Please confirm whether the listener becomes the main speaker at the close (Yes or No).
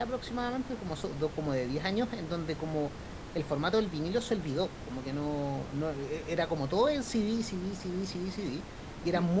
No